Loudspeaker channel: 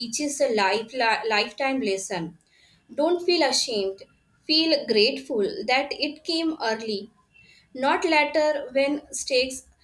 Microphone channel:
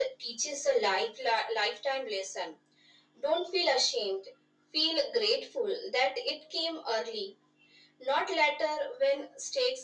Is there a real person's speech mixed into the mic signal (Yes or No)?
No